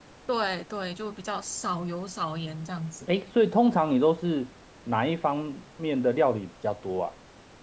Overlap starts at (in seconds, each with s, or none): none